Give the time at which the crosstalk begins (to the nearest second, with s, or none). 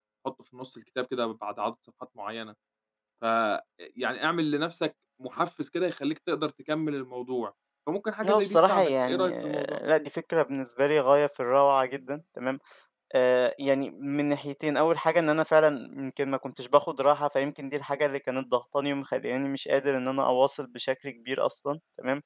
8 s